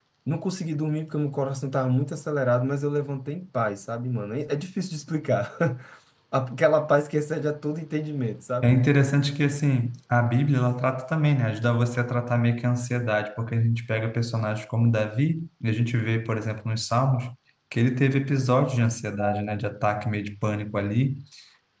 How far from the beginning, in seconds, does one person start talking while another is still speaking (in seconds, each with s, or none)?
none